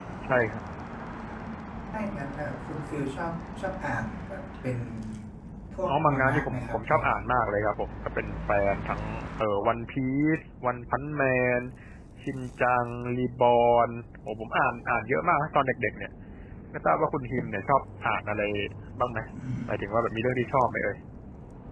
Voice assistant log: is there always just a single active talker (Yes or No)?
No